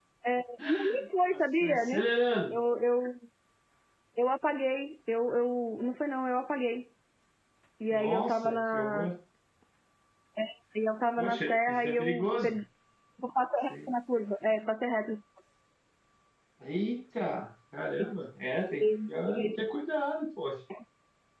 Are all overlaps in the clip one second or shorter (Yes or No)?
No